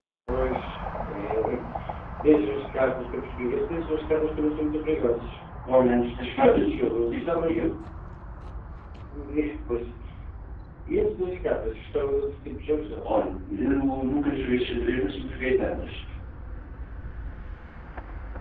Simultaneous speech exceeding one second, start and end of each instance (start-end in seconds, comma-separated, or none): 6.3-7.7